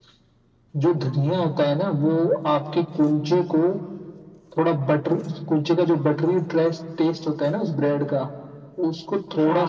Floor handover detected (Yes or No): No